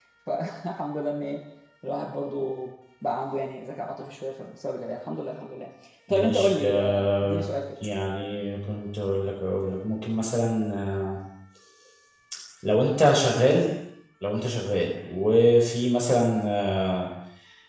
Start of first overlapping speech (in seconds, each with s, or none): 6.1 s